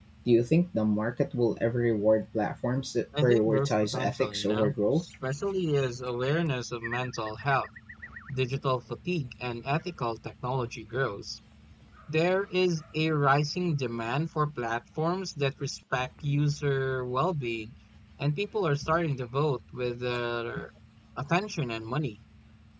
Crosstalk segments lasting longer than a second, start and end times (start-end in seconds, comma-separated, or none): 3.2-5.0